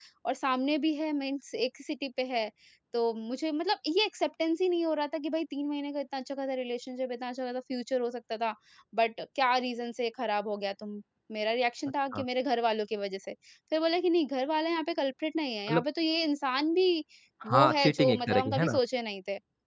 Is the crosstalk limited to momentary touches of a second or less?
No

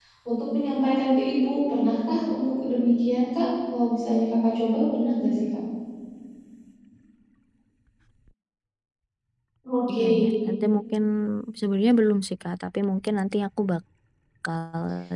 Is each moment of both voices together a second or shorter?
Yes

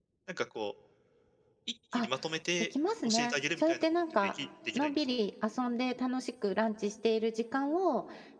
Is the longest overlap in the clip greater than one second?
Yes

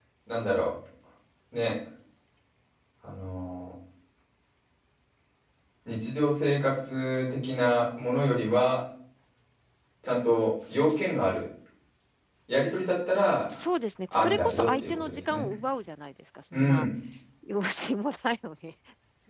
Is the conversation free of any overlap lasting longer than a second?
No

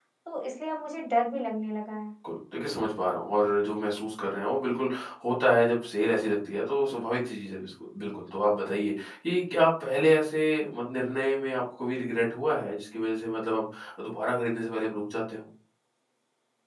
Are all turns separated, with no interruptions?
Yes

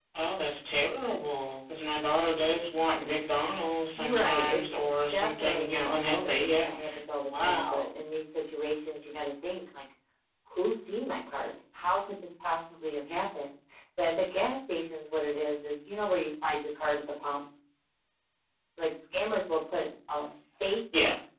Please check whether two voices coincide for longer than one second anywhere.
Yes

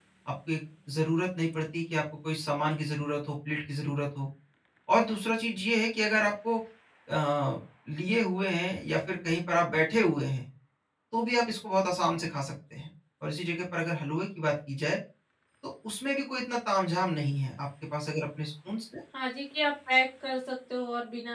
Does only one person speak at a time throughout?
Yes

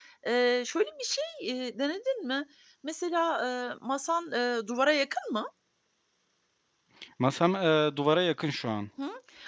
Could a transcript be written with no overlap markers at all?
Yes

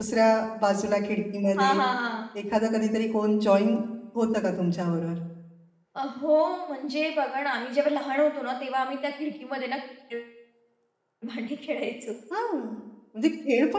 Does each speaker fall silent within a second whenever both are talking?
Yes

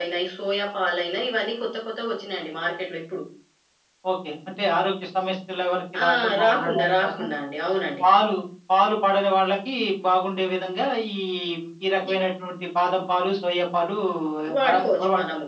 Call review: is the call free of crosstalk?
No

